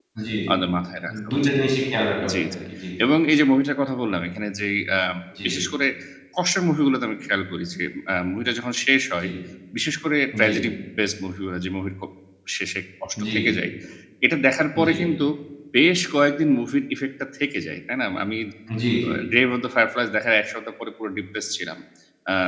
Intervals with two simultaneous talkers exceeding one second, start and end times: none

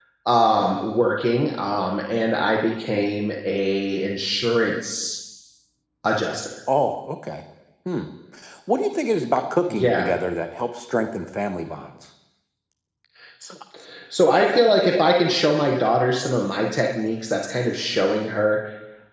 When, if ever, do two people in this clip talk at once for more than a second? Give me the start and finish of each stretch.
none

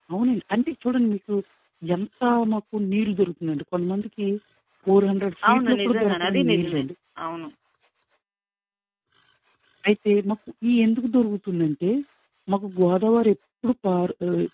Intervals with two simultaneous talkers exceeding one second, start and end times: 5.5-6.8

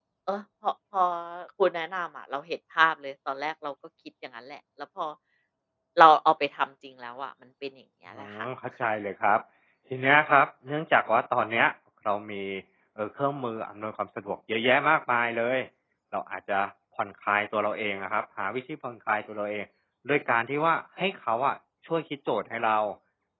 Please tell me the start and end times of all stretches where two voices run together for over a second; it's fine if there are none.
none

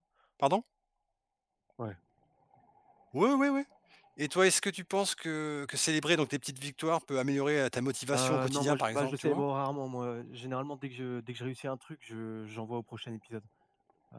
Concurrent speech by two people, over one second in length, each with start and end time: 8.1-9.4

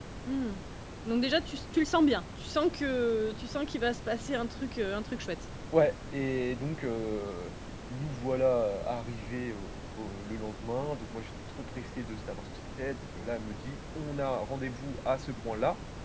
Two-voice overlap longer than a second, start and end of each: none

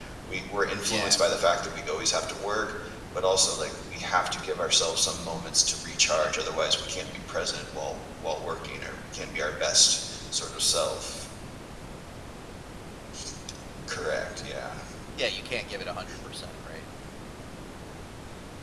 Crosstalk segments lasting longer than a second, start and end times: none

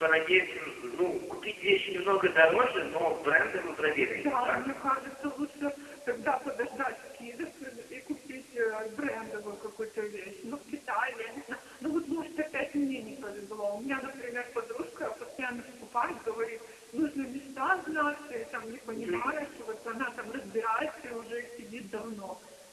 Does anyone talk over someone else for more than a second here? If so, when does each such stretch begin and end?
none

